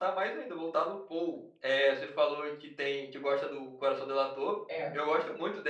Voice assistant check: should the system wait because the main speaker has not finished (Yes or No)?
Yes